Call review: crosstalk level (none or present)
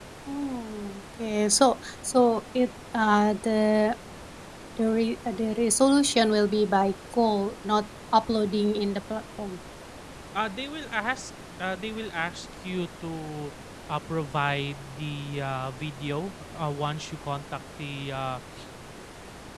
none